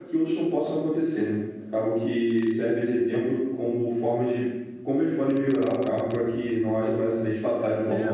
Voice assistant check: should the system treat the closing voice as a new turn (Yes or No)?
Yes